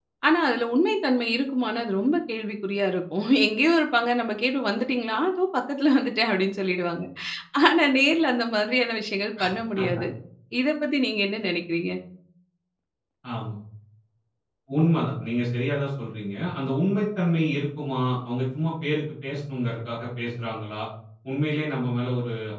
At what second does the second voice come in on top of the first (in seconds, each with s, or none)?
none